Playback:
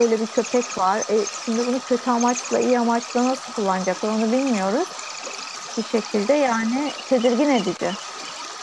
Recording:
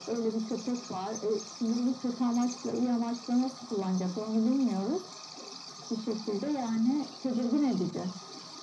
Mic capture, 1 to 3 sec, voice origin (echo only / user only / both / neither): echo only